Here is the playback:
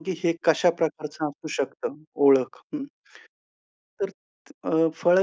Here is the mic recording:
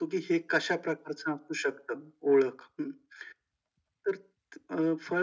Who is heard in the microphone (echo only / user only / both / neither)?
echo only